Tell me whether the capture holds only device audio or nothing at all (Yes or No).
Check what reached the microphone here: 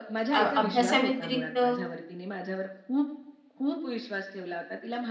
No